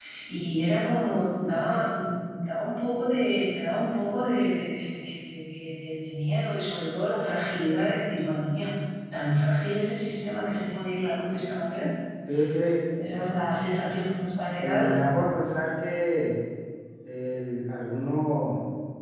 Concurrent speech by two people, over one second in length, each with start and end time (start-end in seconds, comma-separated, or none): none